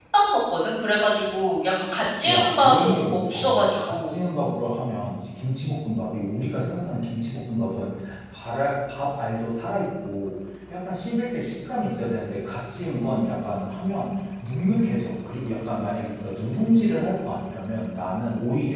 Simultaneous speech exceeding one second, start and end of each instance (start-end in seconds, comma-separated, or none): 2.3-4.2